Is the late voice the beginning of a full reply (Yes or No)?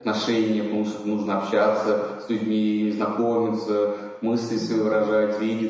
No